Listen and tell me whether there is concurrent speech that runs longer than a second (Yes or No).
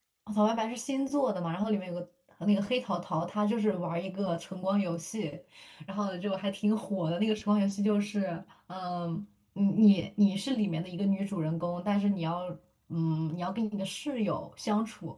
No